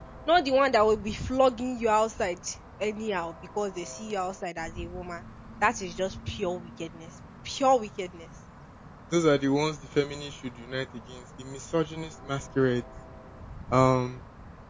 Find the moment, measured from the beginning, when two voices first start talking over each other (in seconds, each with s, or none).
none